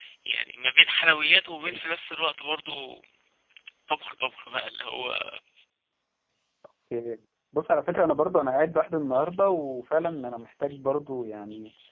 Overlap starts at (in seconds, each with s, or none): none